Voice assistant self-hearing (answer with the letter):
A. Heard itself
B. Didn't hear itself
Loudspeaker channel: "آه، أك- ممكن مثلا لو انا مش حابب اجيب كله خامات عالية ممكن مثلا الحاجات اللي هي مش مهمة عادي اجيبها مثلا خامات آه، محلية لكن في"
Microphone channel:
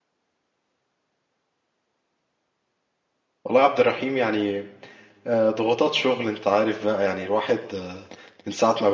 B